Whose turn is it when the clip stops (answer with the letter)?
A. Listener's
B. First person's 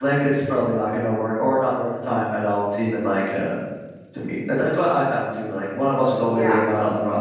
B